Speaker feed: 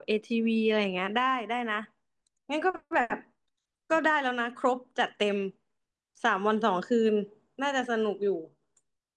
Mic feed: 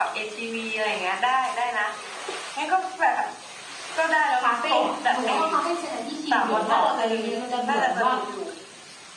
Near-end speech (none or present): present